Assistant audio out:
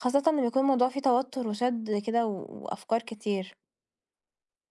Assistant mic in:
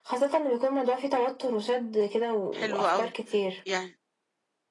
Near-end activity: present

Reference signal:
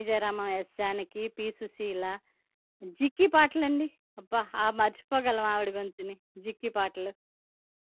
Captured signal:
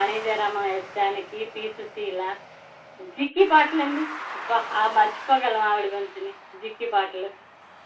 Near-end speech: none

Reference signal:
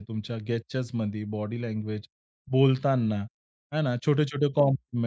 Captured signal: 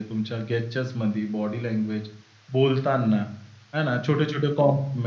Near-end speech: none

